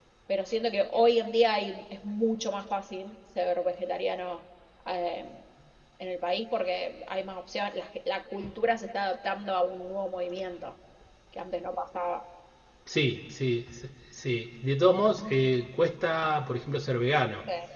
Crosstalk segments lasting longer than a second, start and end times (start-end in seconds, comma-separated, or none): none